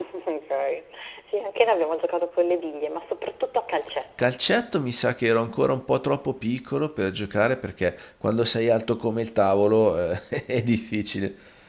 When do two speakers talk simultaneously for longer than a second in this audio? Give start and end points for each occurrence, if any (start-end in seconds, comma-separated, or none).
none